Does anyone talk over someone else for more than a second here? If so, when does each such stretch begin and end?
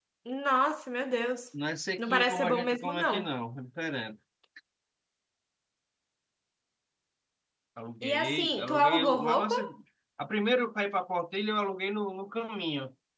2.0-3.3, 8.0-9.6

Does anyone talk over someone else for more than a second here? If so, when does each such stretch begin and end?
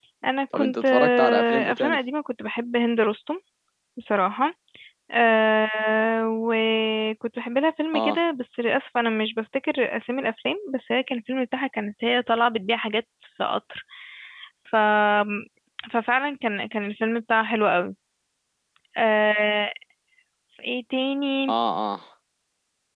0.5-2.0

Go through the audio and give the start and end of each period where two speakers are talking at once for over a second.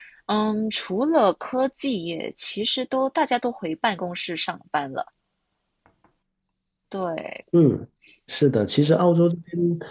none

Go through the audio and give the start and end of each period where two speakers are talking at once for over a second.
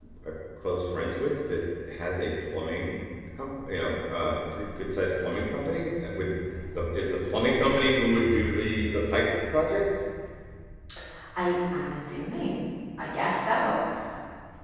none

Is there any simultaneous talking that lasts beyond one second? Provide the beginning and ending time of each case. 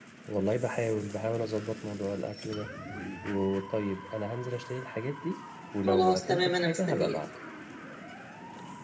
5.8-7.2

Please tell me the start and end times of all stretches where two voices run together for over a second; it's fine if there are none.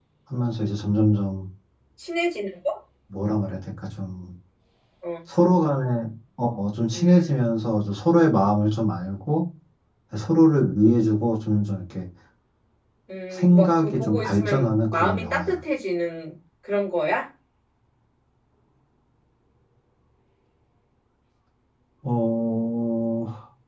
13.3-15.6

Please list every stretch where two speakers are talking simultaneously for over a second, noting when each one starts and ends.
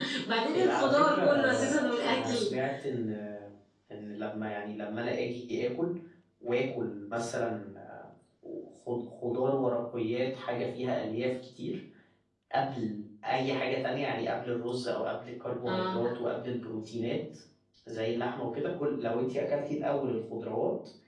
0.5-2.5

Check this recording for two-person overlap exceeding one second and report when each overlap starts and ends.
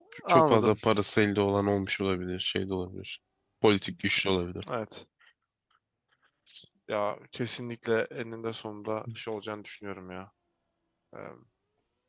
none

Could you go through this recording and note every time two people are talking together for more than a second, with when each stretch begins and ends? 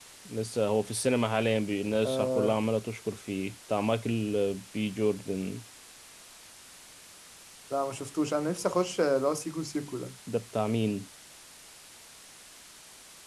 none

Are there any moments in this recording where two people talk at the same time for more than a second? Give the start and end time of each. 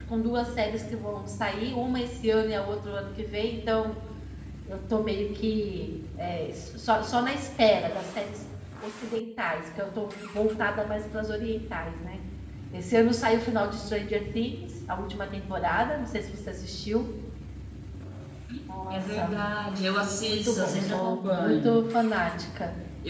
20.3-21.8

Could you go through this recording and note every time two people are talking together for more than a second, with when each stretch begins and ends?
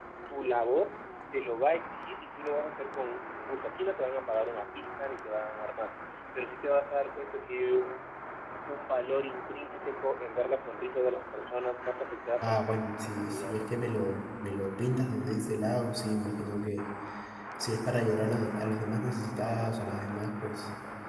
12.4-13.8

